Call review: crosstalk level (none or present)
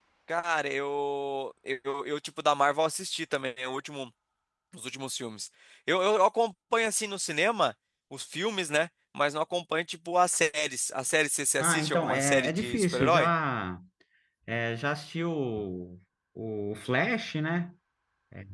present